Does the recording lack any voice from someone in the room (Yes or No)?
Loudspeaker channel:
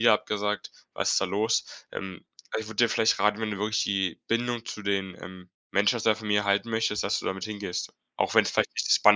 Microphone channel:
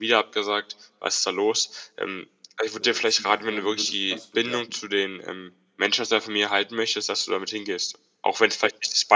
No